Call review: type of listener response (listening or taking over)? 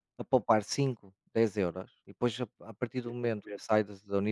listening